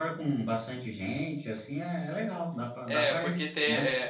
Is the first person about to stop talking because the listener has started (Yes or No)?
Yes